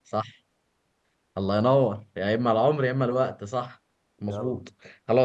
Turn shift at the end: No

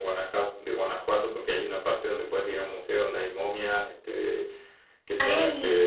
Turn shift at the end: No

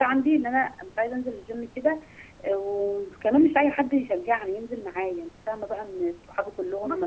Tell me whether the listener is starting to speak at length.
No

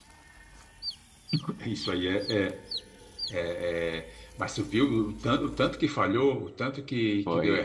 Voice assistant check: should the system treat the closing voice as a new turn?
Yes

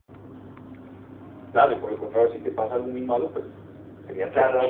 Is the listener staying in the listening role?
No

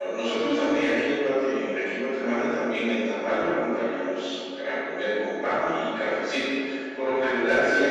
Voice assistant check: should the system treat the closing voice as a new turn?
No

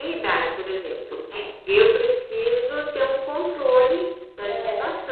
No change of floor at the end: Yes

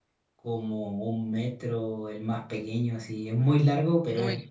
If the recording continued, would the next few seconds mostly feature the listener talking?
No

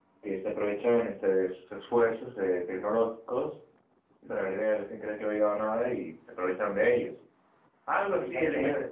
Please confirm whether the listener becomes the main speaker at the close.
No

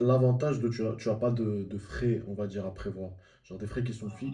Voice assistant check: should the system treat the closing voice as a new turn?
No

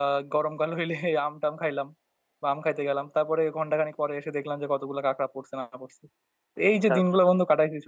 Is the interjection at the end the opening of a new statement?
No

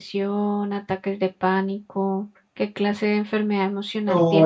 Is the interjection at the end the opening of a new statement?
Yes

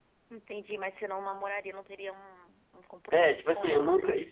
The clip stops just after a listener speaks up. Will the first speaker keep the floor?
No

